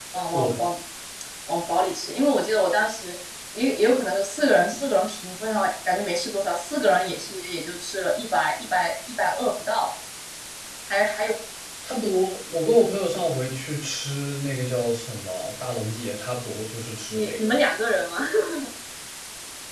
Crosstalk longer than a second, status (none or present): none